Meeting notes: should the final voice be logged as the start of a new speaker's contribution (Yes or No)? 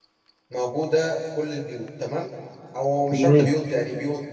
No